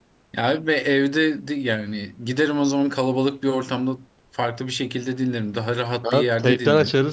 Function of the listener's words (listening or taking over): taking over